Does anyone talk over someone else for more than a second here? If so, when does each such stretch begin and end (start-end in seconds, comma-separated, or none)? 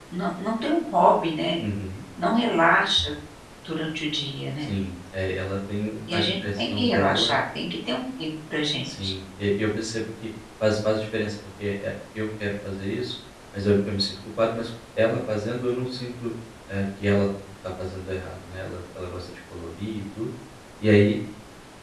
6.1-7.4